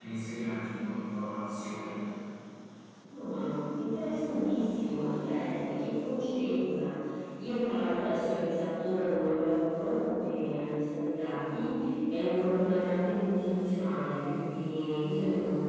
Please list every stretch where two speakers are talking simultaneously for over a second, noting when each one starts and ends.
none

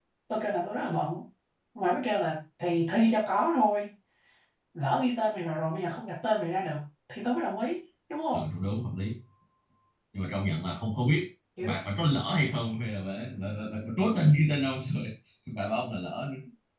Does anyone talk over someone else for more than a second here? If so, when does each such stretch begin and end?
none

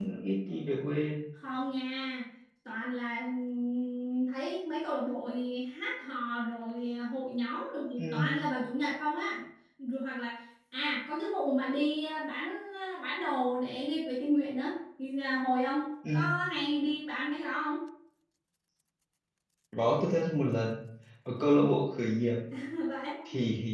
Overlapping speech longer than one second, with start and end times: none

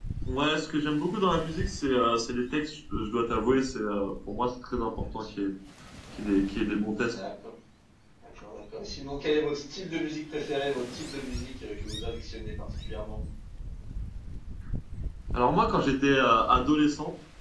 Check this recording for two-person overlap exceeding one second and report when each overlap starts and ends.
none

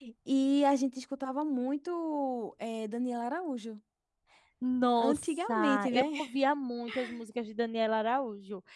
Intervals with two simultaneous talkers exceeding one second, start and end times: 5.0-6.2

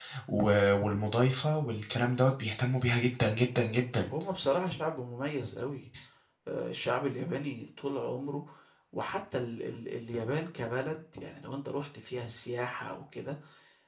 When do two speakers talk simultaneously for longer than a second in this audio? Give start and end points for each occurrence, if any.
none

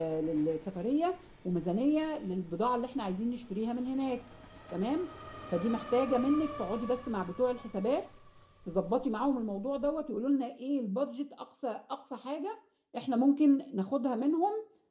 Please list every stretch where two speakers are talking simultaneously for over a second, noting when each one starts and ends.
none

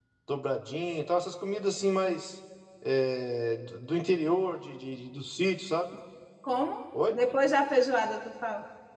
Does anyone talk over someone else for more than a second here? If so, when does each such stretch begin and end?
none

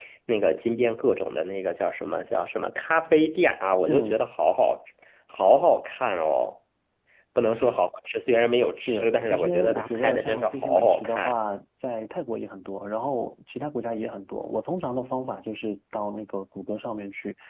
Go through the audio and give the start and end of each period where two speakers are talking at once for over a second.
8.9-11.4

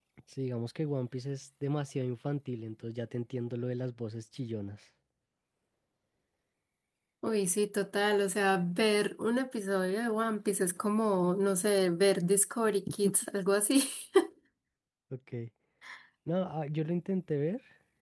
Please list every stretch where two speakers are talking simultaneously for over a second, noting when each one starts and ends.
none

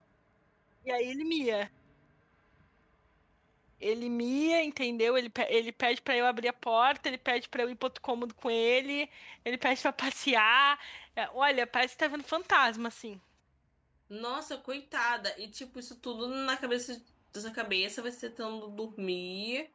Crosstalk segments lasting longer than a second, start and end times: none

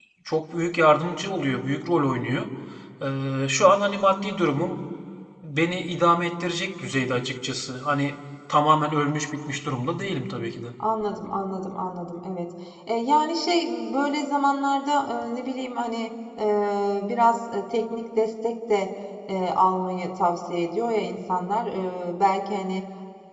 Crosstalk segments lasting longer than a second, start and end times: none

